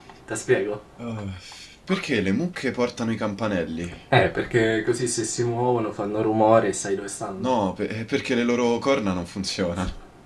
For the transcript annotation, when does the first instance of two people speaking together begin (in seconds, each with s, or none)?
none